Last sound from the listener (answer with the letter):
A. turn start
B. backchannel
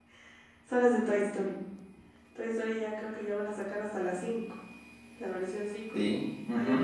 B